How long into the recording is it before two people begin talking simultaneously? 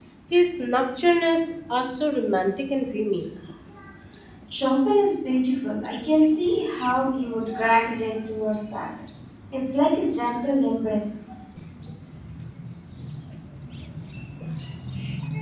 none

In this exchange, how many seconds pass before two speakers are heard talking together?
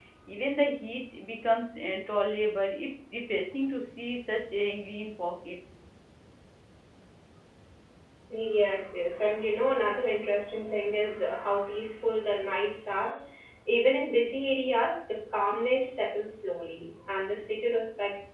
none

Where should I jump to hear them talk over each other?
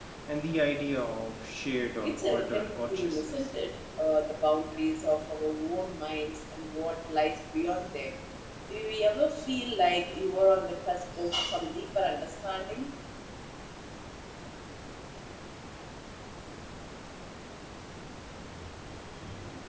2.0 s

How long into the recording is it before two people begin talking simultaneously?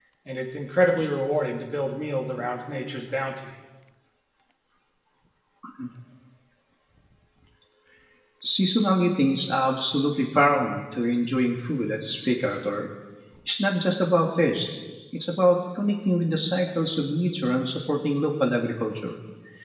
none

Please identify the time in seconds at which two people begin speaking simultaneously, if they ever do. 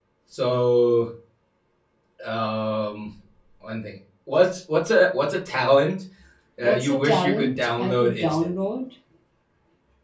6.6 s

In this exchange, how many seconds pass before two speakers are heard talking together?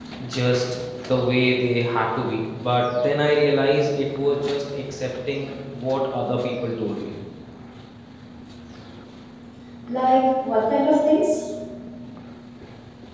none

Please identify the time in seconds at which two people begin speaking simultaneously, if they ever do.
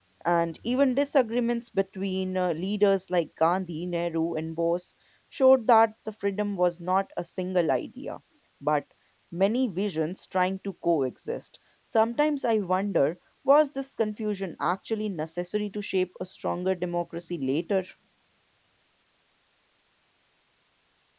none

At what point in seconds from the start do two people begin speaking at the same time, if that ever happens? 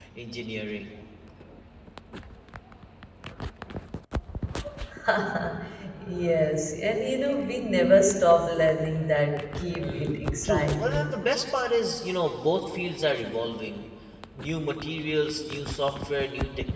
9.8 s

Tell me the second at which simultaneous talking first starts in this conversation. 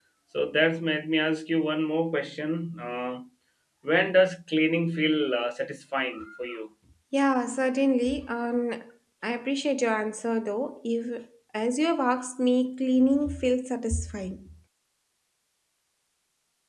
none

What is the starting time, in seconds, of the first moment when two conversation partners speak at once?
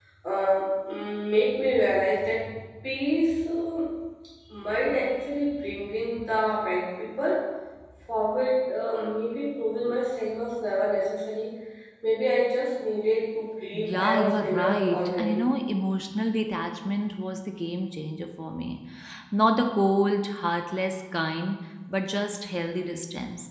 13.7 s

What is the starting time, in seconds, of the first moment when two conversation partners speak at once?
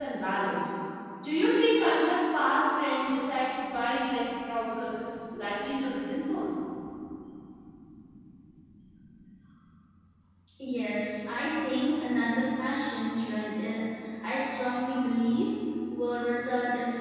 none

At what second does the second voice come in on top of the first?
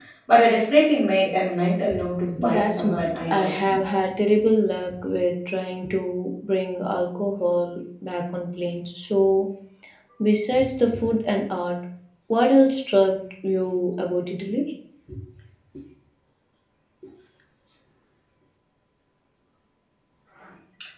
2.5 s

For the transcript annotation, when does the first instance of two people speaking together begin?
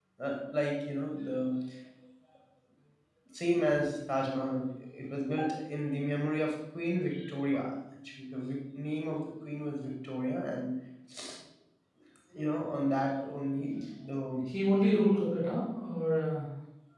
none

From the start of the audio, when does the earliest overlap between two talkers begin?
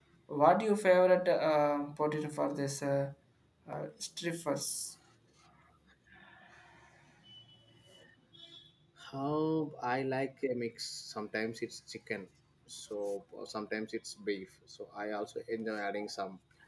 none

